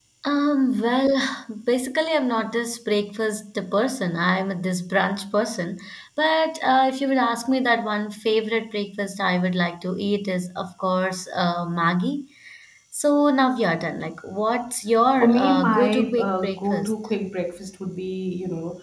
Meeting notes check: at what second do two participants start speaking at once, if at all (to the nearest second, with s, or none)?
15 s